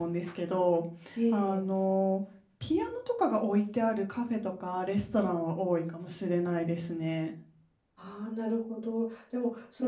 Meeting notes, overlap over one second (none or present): none